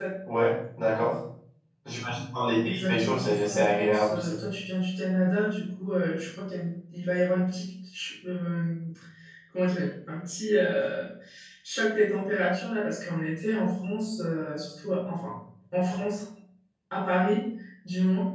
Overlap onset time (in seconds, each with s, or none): 2.6 s